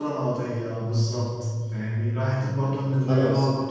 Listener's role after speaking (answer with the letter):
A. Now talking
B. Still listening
B